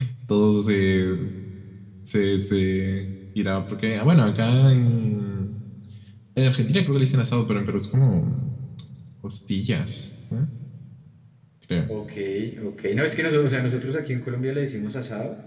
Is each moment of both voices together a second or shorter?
Yes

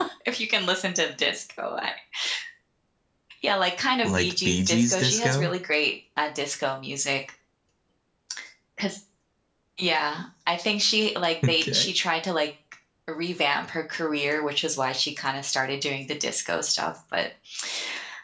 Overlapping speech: Yes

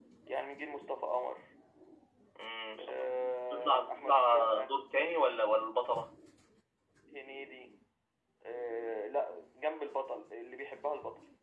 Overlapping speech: Yes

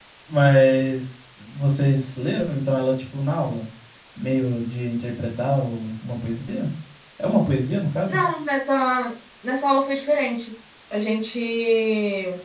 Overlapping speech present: No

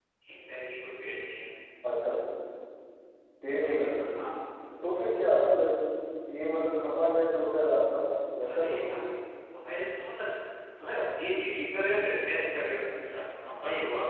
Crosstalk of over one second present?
No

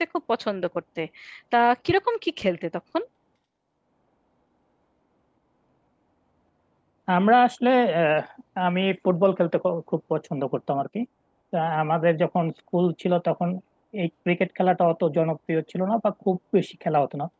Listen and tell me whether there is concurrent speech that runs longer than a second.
No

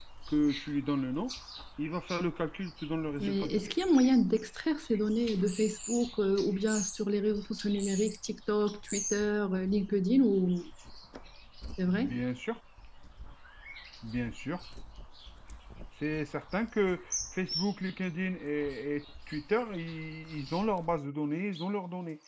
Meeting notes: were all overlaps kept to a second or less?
Yes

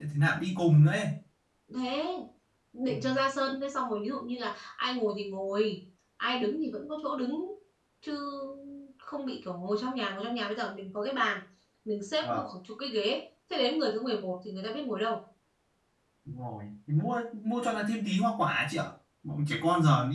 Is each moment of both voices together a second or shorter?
Yes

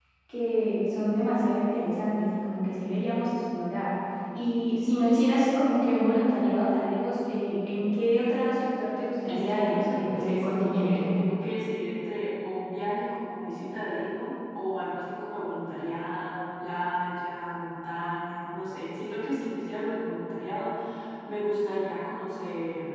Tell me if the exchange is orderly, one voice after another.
No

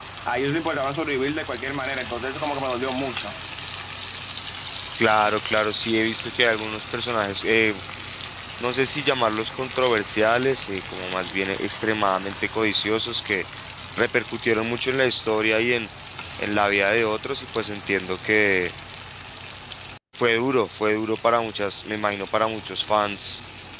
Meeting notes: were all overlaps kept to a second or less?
Yes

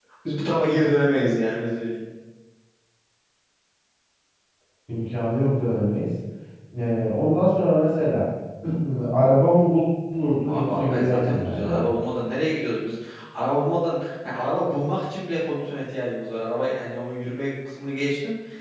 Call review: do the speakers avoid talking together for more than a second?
No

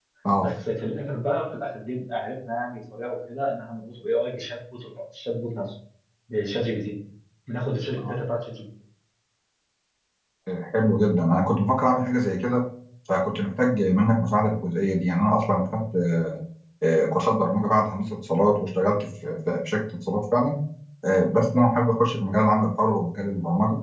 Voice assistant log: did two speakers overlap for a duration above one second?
No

